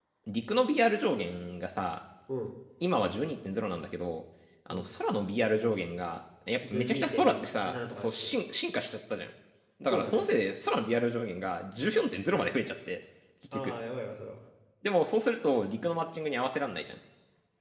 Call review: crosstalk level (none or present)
present